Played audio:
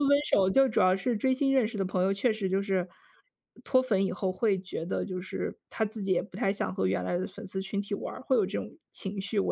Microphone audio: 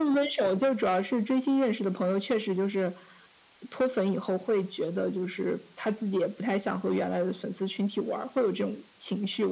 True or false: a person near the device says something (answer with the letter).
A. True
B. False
B